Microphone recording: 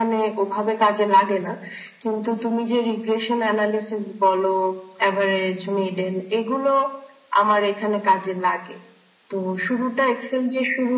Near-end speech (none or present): none